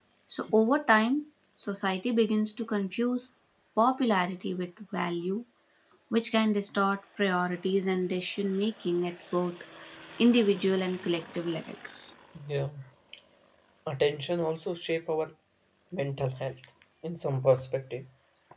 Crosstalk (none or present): none